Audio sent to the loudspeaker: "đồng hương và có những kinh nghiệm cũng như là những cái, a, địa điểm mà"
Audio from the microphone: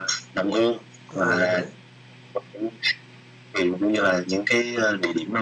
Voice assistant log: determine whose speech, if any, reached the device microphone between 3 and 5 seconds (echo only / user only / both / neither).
echo only